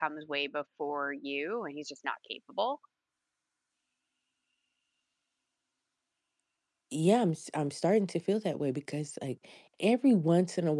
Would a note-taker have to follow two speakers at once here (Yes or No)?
No